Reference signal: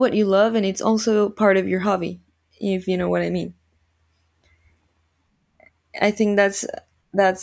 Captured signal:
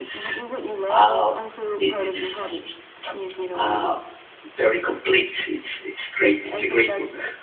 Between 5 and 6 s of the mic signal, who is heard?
user only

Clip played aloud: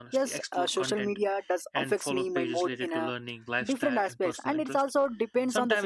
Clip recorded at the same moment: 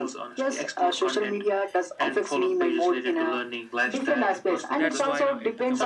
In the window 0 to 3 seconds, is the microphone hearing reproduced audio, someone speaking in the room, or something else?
echo only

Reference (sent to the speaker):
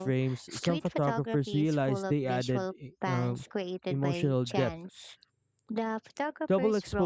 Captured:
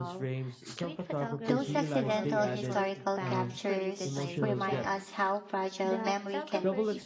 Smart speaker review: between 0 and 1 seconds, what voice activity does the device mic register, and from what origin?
echo only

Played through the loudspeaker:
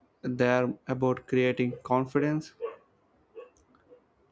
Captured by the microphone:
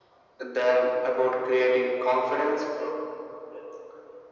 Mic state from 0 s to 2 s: echo only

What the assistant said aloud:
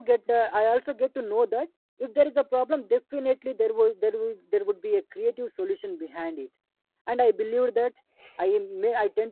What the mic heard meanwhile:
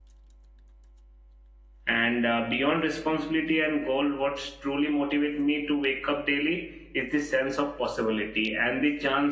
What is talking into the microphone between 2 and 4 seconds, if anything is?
user only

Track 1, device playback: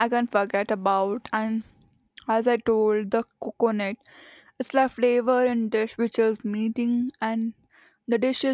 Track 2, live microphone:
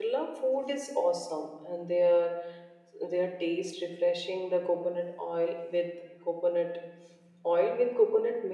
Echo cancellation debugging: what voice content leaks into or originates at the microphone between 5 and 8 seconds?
user only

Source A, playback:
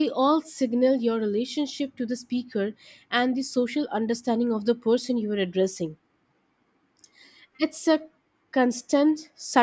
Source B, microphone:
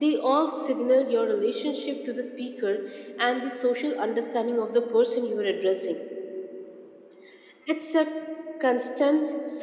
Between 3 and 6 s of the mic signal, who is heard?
echo only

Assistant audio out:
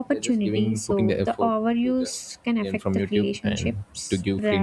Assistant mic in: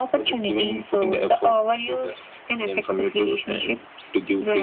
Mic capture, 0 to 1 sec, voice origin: echo only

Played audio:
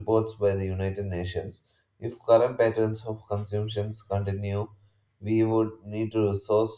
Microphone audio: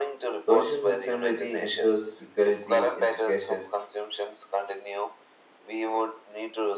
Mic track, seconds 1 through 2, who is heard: both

